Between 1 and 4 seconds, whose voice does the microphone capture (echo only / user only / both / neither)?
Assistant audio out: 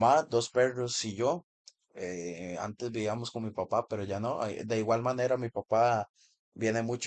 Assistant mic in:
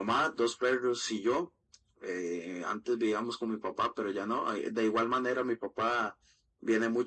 echo only